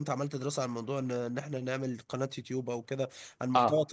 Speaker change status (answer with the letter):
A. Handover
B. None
A